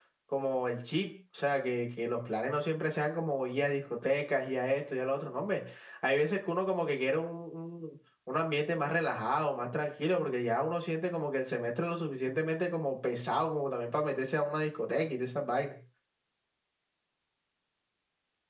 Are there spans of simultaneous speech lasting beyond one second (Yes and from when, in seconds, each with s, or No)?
No